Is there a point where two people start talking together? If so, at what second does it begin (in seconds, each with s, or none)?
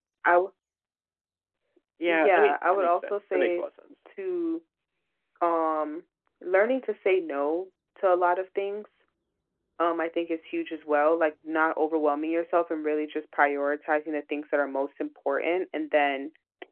2.1 s